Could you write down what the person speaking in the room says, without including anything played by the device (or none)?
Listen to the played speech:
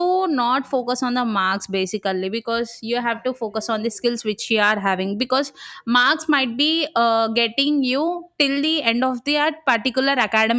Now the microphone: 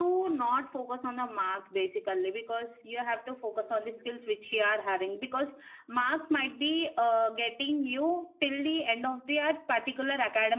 none